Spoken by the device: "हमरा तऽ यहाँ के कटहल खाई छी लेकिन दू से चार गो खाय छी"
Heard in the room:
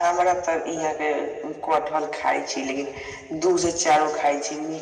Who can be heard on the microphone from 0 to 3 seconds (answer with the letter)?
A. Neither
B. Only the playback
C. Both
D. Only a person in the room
B